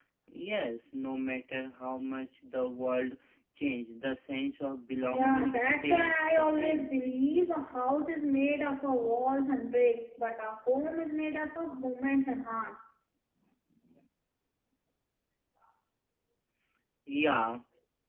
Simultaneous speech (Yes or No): Yes